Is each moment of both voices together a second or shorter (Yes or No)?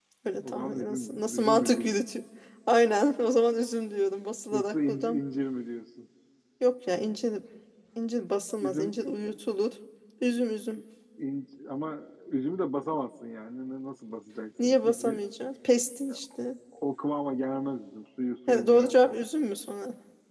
No